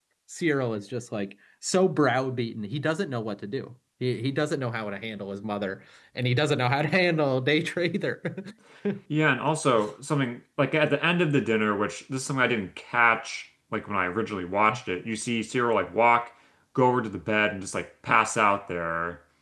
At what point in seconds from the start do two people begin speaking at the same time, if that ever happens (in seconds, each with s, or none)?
none